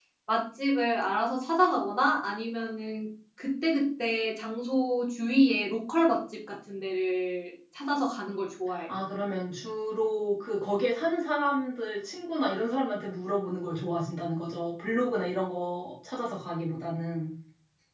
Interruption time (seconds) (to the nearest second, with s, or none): none